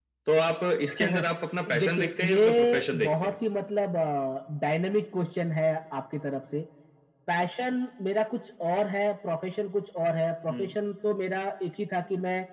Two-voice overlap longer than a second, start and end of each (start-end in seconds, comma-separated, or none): 1.8-3.4